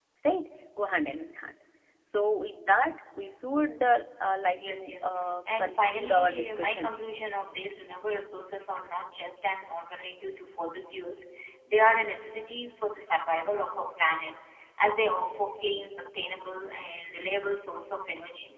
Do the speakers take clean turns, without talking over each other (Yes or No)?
No